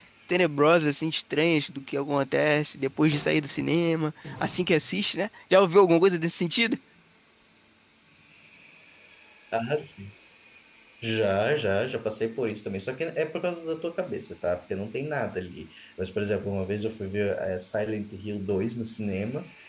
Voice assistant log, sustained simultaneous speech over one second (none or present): none